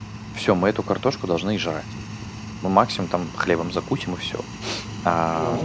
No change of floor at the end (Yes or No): Yes